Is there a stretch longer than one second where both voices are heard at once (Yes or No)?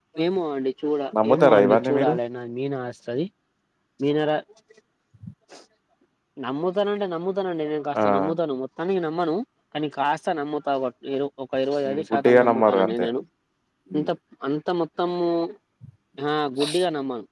Yes